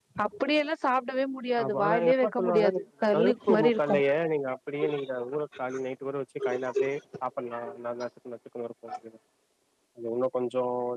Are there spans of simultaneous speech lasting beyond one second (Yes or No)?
Yes